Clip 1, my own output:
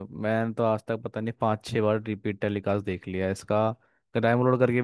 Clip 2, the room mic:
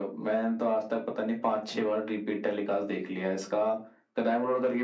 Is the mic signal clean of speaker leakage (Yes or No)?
No